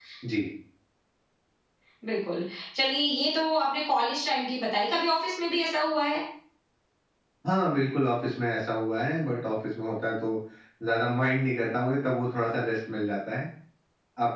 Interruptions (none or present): none